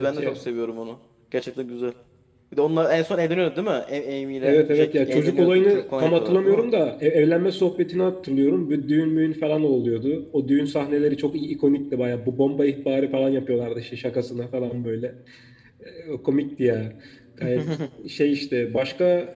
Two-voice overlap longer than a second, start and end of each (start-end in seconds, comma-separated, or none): 4.4-6.6